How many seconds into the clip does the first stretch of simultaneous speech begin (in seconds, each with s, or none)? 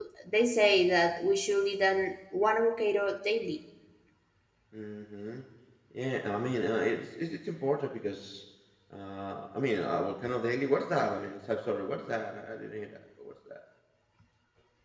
none